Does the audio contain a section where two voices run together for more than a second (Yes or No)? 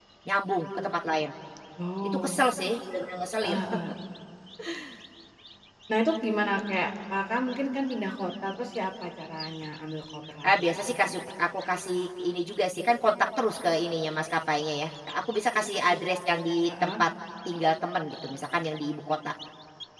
No